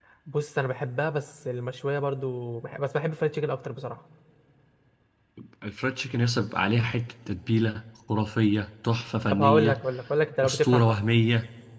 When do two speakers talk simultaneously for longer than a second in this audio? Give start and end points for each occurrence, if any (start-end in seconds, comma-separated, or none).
none